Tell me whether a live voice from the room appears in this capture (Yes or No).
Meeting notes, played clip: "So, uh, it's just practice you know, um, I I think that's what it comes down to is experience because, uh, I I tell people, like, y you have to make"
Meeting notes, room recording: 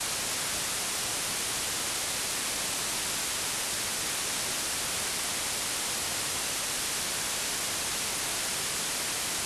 No